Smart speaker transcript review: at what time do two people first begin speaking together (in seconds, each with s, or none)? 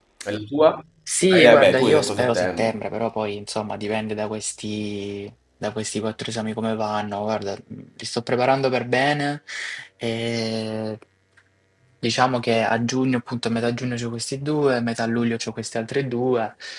1.3 s